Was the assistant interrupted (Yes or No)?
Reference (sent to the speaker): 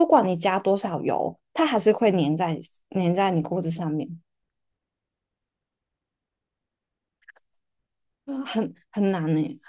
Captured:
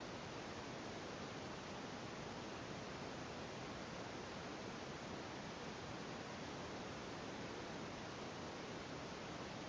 No